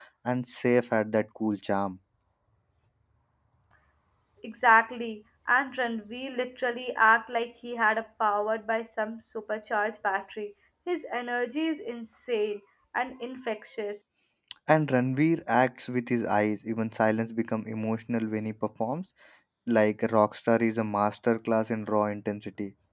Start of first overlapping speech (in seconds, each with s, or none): none